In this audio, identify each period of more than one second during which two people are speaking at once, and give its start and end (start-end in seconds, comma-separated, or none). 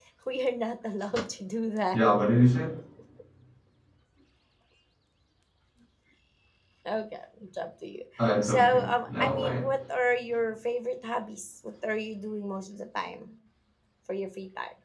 8.4-9.7